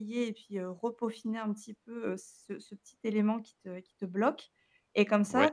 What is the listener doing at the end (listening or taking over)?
listening